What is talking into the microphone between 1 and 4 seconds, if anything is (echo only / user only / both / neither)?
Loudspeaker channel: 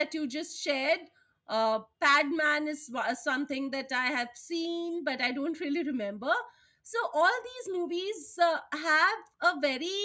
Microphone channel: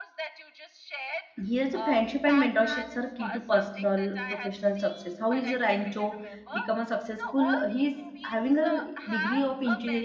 both